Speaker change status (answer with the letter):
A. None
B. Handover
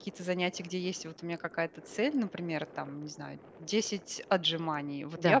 B